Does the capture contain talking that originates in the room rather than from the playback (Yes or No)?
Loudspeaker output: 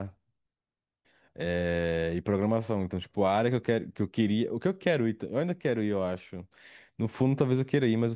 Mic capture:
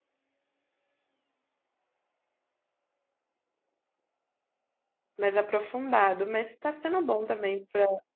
Yes